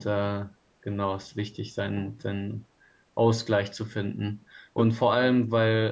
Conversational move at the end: listening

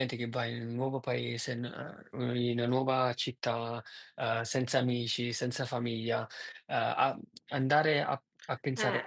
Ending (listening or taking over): listening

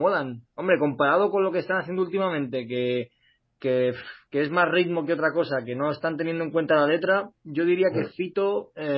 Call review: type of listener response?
listening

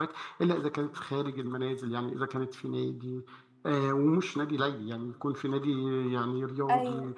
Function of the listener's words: listening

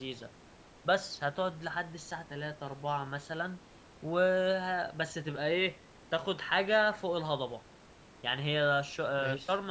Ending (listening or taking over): listening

